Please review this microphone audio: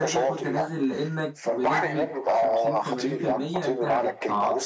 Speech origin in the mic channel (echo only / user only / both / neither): both